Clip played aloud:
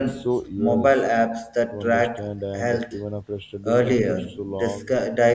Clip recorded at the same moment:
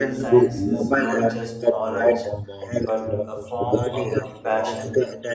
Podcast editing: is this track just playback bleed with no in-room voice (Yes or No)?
No